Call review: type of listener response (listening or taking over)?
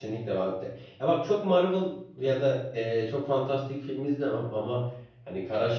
listening